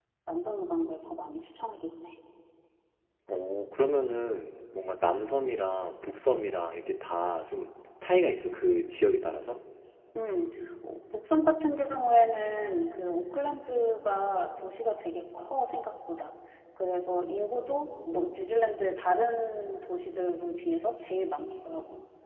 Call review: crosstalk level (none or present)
none